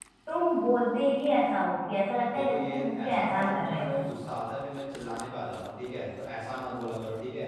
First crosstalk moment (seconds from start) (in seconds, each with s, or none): 2.2 s